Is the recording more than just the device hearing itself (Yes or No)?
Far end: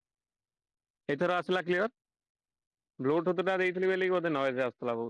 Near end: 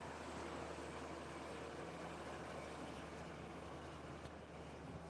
No